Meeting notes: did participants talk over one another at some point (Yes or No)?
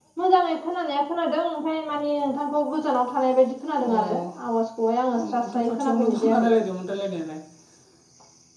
Yes